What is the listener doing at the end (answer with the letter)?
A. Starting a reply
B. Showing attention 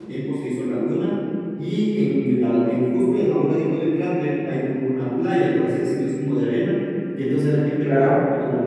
B